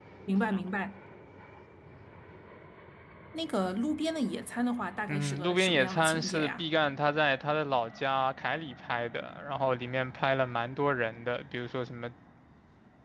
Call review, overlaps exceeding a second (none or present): present